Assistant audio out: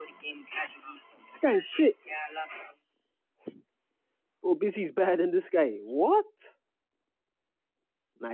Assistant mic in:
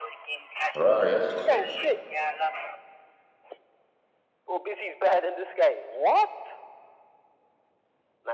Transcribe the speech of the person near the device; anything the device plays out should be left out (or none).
Right, yes, he actually message.